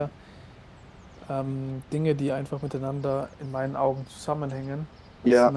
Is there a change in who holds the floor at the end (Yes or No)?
Yes